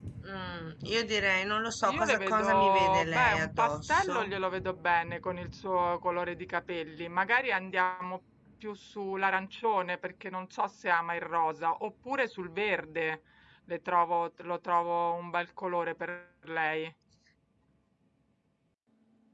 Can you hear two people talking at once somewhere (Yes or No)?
Yes